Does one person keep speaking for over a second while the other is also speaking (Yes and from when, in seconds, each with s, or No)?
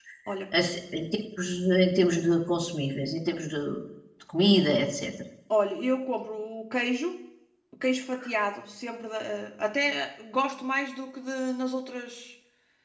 No